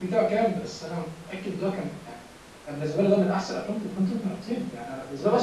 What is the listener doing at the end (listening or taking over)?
listening